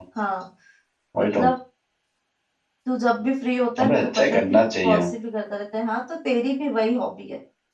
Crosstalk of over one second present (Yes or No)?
Yes